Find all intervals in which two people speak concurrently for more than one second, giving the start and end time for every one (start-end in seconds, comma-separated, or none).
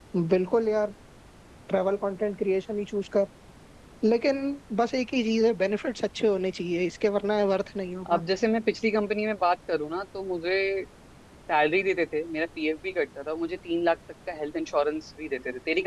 none